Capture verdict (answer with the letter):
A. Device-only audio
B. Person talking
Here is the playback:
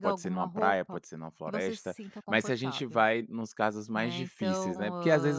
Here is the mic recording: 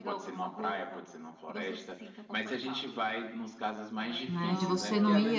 B